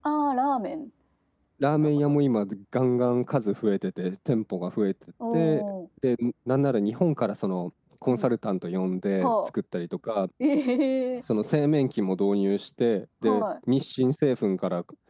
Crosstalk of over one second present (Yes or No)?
No